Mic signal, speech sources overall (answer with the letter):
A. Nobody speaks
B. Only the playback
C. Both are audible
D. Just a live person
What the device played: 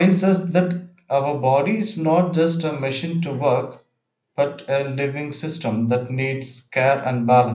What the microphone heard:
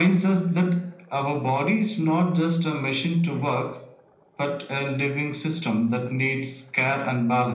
B